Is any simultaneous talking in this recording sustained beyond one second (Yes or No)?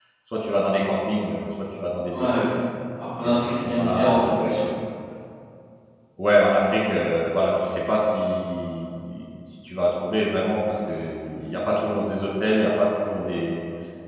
Yes